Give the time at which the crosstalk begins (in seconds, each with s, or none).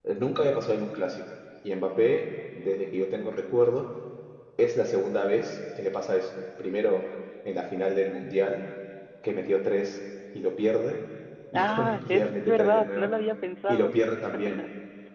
11.5 s